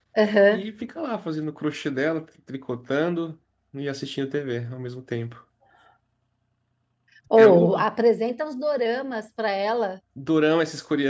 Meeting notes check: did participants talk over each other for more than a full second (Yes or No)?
No